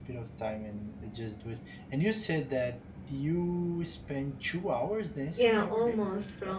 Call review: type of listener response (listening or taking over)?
taking over